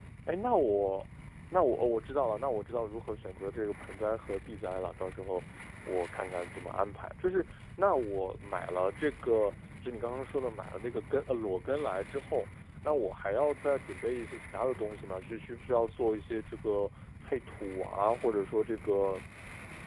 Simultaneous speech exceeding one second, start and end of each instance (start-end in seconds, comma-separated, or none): none